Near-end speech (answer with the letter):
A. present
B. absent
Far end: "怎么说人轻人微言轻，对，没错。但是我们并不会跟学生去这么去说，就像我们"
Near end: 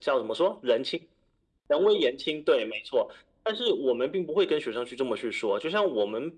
B